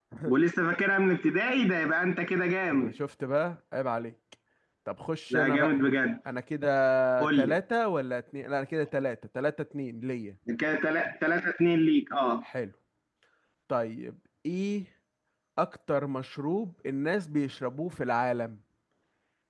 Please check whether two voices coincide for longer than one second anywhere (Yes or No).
No